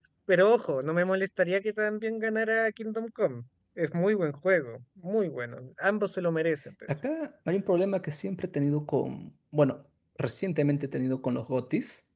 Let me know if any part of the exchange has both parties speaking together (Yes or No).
No